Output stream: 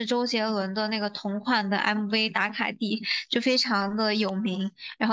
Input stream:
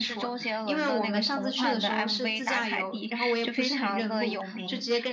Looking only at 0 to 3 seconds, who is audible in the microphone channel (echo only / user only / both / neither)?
both